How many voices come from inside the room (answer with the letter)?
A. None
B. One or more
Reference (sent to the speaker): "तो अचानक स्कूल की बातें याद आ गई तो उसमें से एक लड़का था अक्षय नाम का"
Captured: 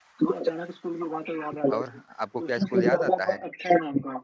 B